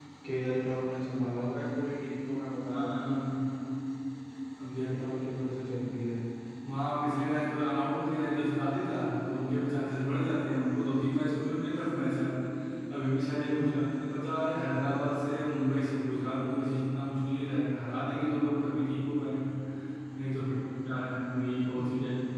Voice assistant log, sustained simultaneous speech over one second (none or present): none